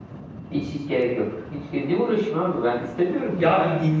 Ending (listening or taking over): taking over